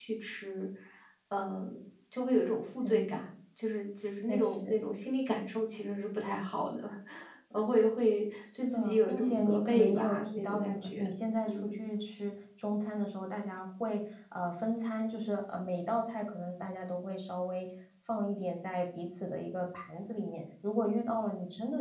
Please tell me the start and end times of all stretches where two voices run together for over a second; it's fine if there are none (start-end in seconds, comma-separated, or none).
8.6-11.0